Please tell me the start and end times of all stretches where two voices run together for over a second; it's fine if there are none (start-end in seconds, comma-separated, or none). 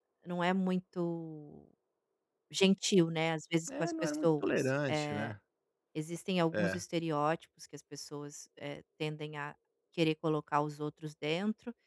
3.7-5.3